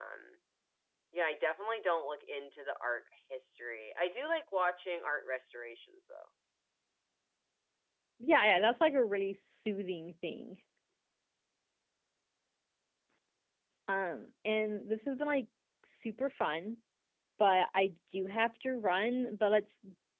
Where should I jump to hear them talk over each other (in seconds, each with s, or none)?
none